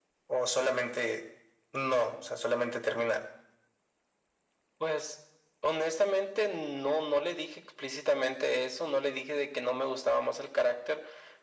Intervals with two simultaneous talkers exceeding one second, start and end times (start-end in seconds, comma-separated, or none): none